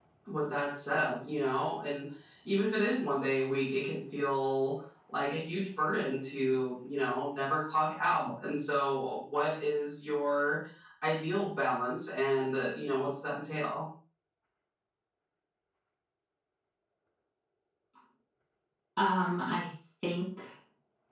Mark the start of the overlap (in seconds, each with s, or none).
none